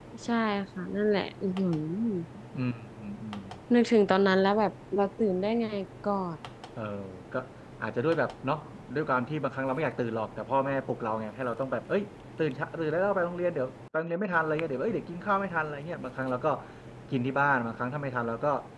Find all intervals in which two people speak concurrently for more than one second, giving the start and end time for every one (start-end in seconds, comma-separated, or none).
none